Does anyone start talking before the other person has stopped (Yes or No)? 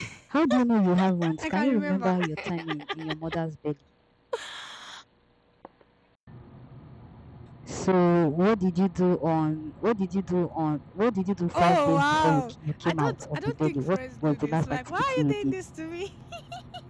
Yes